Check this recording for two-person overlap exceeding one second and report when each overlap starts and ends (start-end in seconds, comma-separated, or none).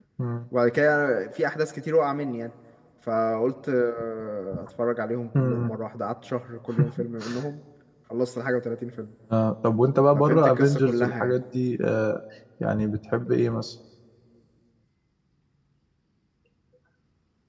10.1-11.3